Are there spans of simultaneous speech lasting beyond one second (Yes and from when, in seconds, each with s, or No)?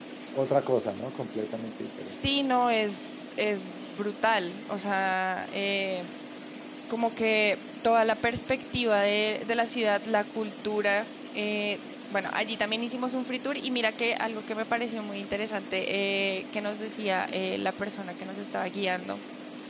No